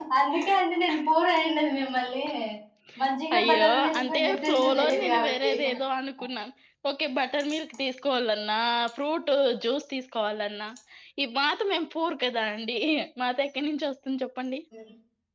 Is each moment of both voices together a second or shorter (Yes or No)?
No